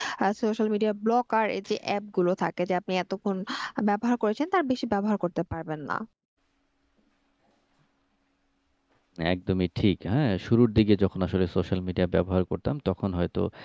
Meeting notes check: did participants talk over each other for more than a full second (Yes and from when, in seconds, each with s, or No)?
No